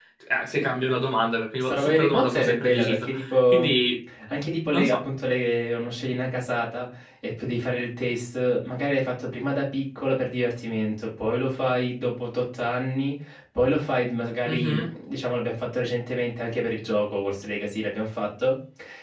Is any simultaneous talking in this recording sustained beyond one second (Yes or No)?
Yes